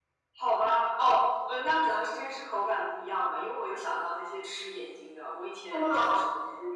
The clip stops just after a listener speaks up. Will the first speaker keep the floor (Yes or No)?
Yes